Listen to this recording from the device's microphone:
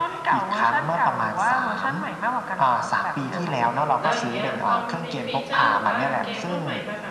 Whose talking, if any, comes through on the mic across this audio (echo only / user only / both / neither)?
both